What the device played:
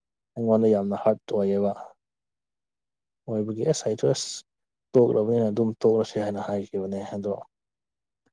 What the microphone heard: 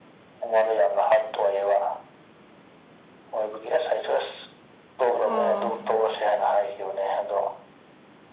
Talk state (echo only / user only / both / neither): both